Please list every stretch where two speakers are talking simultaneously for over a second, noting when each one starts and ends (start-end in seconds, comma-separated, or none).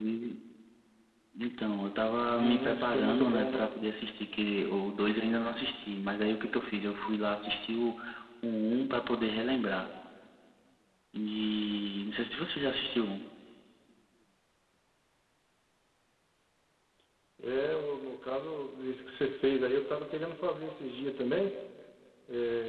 2.3-3.6